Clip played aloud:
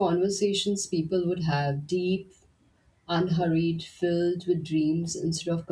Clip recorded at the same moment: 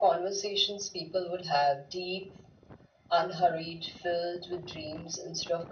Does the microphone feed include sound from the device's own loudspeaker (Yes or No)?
Yes